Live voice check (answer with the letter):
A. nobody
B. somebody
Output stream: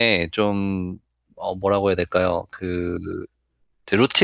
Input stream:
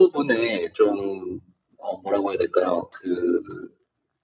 A